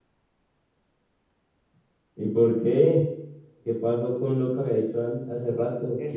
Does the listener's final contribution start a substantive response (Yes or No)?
Yes